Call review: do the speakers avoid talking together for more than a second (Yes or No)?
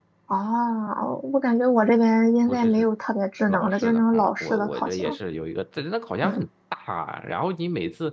No